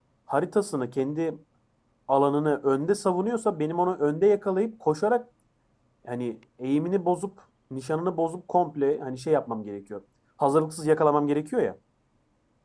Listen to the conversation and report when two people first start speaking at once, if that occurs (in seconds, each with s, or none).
none